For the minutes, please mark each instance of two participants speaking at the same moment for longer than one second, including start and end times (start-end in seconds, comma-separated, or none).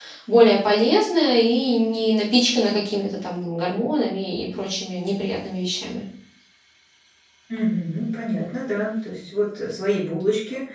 none